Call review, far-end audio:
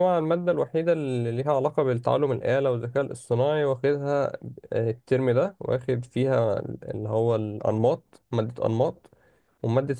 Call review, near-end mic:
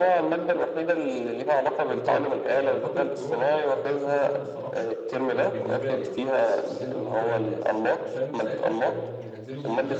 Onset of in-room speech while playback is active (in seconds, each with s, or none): 1.9 s